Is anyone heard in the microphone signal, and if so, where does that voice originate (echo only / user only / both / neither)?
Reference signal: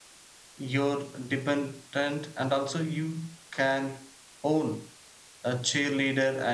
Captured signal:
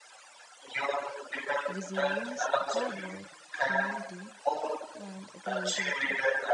both